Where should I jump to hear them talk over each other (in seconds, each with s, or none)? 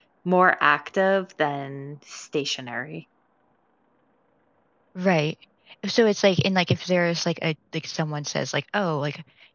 none